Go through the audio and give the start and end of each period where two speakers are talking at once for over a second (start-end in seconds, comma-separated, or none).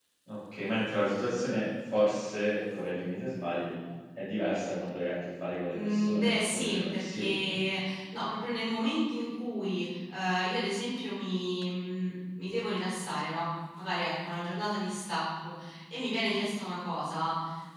5.7-7.6